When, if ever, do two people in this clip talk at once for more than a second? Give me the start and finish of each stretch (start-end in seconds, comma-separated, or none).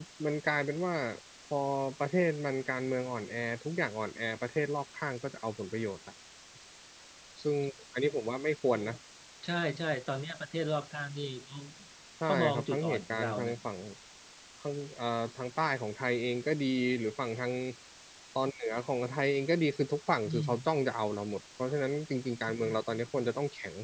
12.2-13.6